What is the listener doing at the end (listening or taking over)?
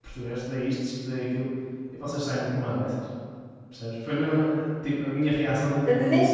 taking over